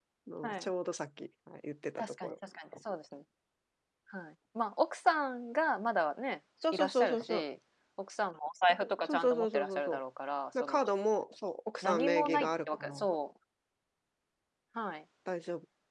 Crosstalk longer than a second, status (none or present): present